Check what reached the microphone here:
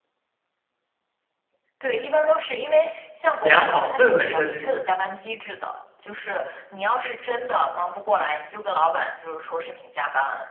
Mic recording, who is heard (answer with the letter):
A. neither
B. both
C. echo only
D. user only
B